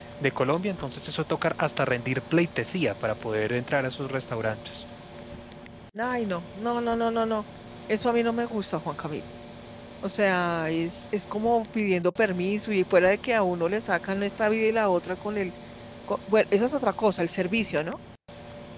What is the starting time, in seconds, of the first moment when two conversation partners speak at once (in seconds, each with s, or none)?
none